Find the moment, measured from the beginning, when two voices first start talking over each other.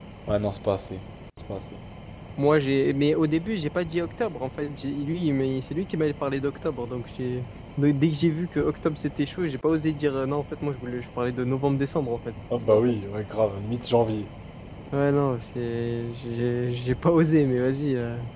none

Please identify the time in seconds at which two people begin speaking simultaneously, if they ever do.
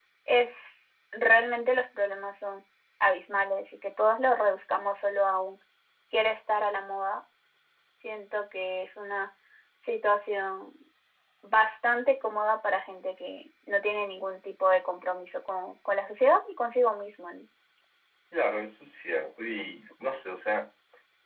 none

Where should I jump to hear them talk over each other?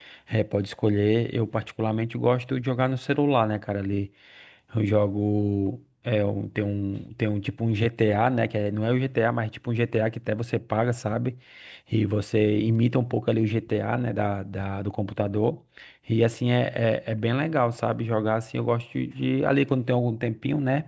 none

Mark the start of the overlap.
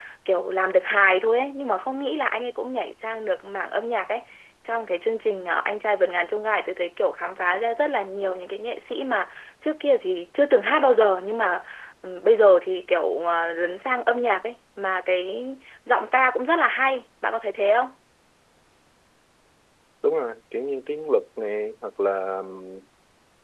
none

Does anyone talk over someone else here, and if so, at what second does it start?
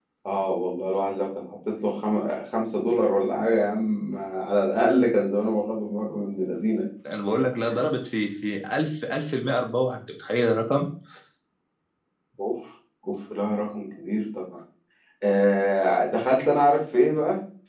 none

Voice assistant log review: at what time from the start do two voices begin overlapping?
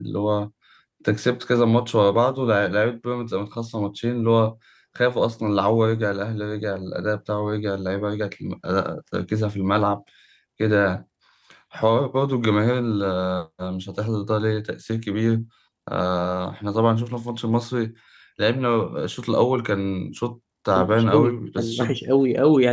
20.8 s

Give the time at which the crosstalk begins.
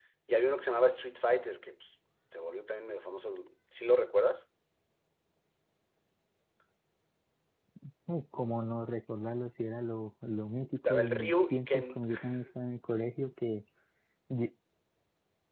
10.8 s

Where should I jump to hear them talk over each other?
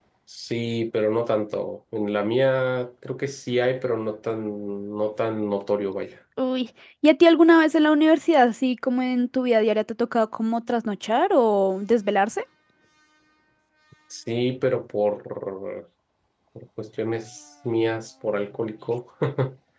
none

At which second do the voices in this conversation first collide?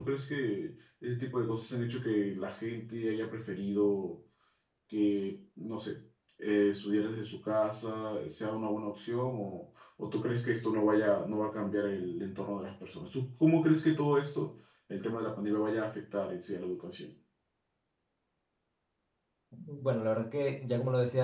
none

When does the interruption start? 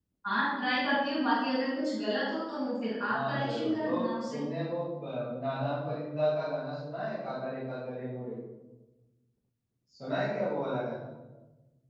3.1 s

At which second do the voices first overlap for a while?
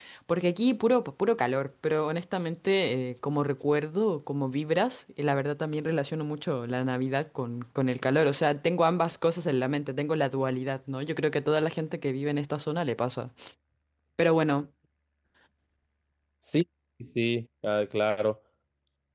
none

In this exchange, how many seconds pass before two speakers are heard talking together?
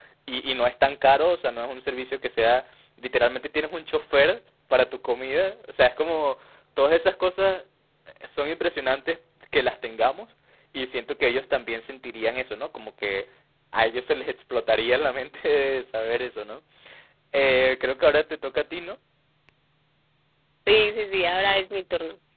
none

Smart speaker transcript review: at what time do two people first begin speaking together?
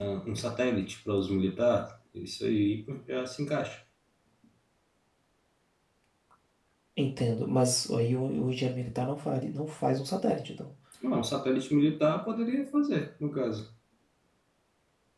none

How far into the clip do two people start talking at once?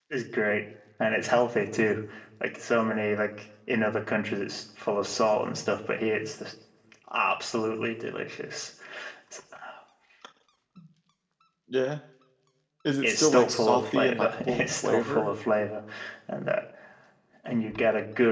13.0 s

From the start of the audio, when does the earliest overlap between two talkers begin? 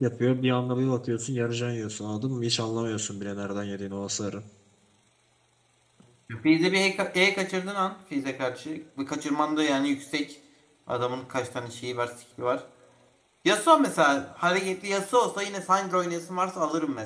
none

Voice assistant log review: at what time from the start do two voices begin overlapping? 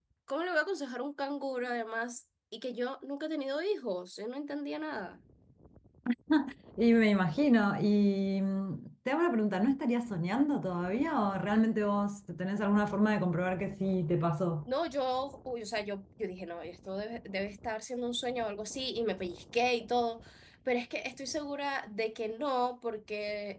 none

